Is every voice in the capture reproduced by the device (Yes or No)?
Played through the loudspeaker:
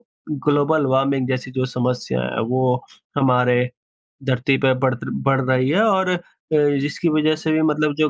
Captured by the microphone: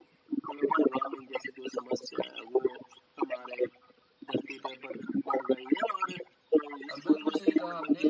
No